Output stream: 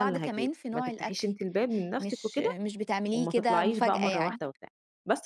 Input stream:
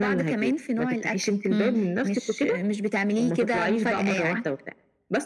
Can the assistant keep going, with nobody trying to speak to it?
No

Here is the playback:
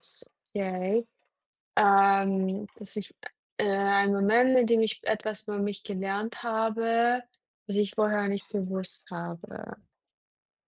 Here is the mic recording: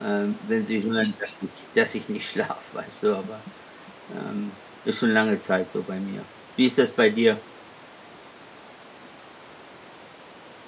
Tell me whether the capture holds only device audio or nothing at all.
No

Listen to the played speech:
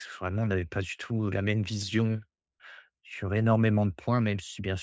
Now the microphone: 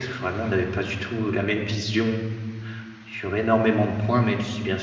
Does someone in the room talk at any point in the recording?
No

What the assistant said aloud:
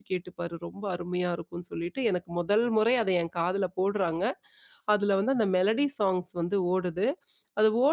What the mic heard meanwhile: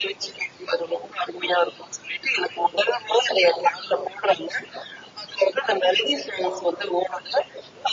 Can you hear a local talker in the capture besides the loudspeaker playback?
No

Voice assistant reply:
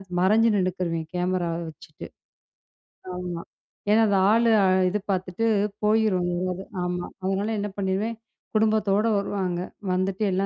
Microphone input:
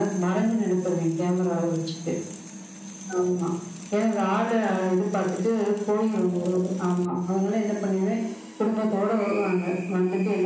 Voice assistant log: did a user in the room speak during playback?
No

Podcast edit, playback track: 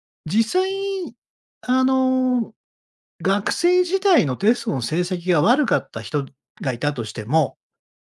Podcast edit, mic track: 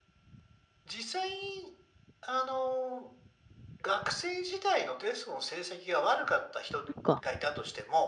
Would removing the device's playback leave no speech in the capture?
No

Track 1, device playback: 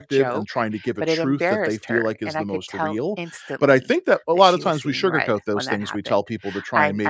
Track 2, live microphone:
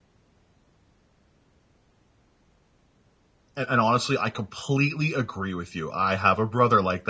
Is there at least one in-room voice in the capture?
Yes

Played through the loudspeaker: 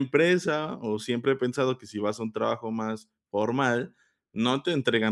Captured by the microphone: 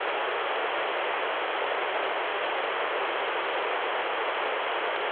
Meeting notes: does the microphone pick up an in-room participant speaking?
No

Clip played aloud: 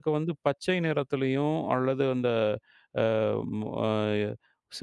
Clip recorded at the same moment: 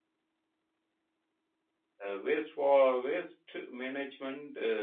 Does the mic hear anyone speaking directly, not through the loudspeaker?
Yes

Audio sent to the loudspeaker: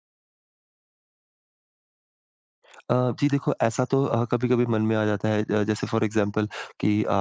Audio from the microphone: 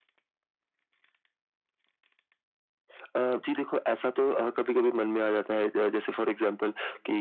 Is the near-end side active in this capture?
No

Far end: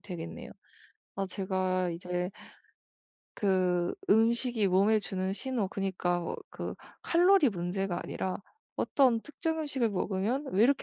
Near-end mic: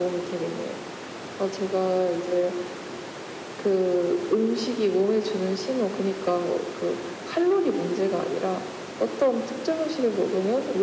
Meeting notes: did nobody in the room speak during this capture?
Yes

